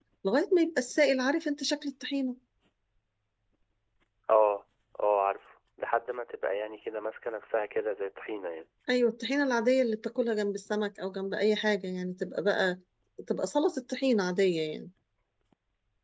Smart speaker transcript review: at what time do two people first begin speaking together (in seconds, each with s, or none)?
none